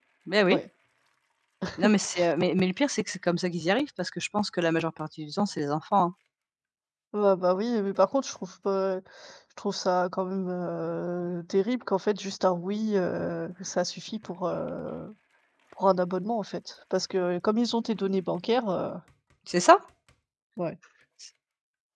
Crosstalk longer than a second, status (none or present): none